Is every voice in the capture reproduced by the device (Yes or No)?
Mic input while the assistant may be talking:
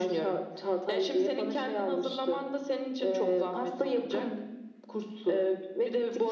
Yes